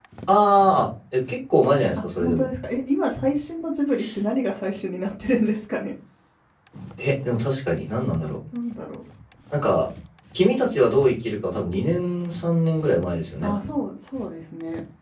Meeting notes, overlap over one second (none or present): none